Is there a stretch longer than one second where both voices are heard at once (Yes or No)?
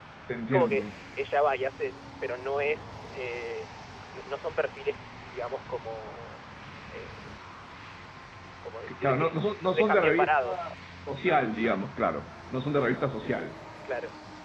Yes